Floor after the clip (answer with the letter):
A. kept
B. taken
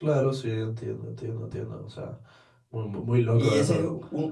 B